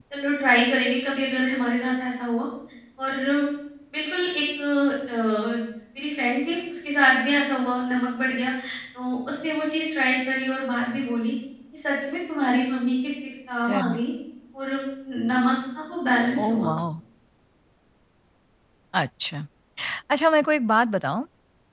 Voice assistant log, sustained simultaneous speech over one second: none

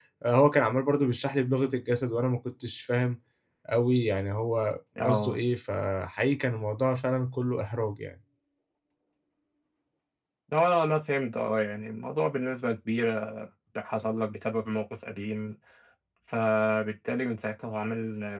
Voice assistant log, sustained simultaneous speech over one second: none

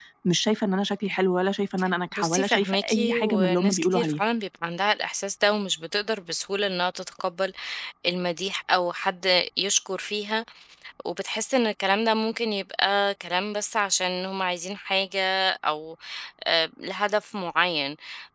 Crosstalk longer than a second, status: present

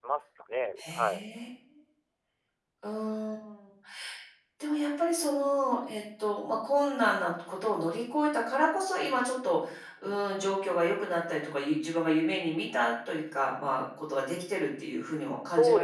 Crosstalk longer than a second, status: none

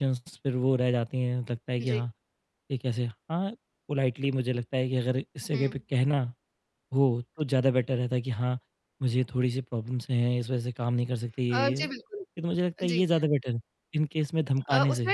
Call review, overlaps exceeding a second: none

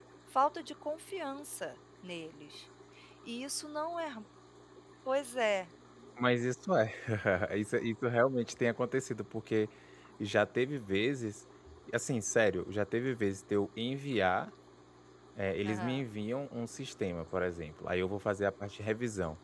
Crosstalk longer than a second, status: none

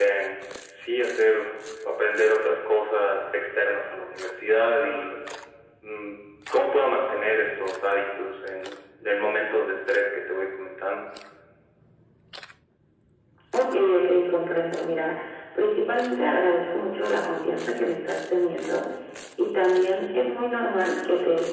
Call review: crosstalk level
none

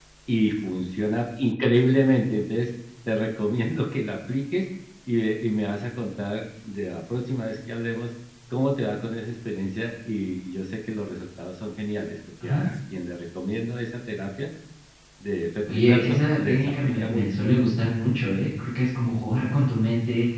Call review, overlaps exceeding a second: present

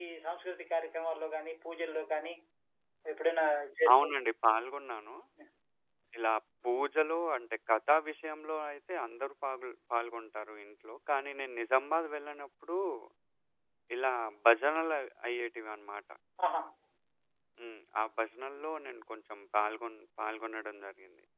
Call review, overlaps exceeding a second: none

